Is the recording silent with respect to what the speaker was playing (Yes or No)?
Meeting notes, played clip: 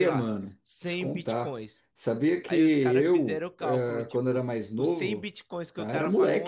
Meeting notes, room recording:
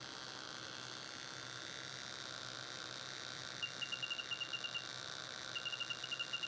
Yes